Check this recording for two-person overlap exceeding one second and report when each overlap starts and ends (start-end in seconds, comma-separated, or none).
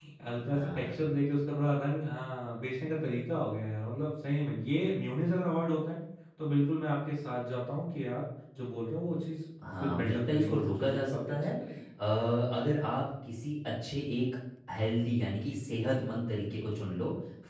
9.6-11.5